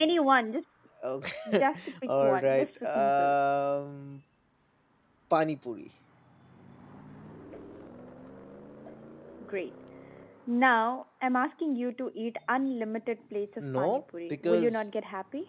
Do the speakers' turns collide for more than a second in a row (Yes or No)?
Yes